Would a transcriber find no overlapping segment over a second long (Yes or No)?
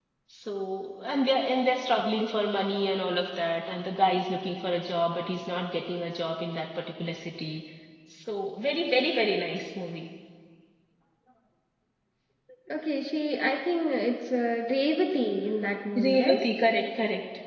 Yes